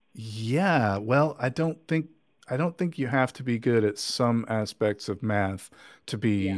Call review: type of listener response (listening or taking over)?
listening